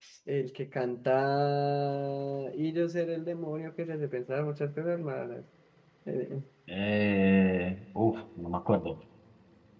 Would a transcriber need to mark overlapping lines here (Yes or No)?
No